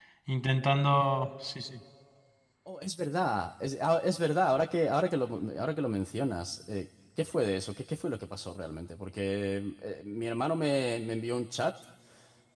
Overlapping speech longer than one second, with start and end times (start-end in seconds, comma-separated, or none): none